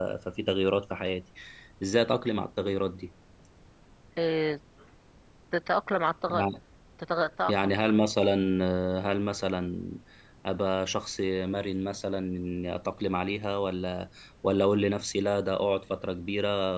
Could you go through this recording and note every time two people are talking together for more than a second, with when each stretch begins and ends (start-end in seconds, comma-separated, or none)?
none